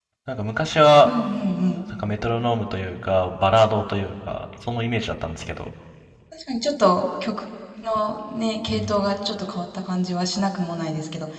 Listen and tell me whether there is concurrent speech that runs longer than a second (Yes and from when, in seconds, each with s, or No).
No